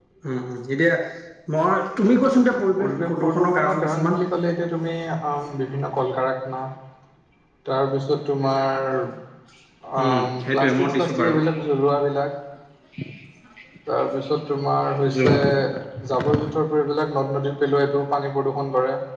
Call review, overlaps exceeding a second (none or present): present